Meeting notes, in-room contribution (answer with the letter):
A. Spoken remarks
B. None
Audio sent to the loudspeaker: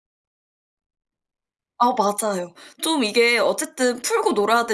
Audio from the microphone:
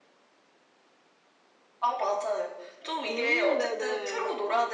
A